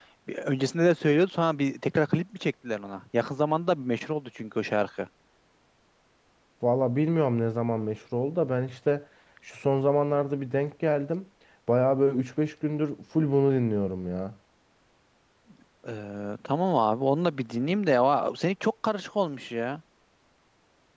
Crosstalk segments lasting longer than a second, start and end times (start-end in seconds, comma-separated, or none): none